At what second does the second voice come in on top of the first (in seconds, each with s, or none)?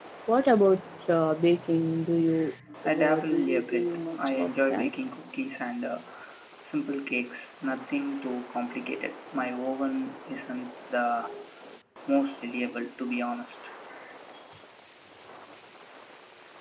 2.8 s